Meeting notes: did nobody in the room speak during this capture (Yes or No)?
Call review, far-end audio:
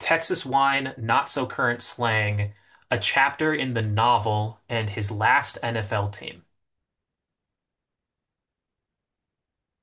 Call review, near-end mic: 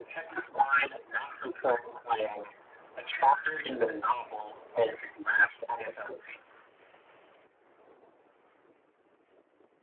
Yes